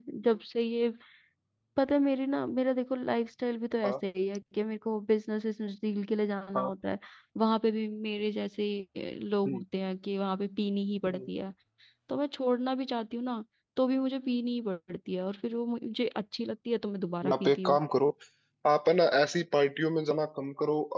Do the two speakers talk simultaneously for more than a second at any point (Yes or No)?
No